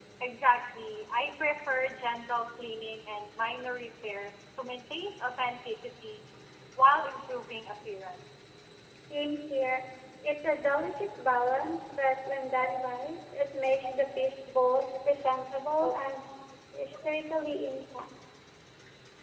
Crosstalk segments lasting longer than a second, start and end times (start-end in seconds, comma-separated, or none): none